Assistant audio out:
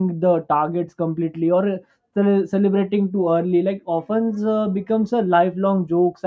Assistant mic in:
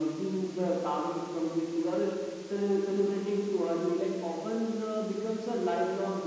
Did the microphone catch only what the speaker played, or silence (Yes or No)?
Yes